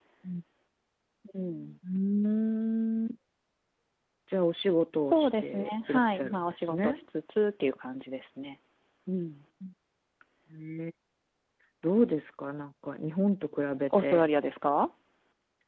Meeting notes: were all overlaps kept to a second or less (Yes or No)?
No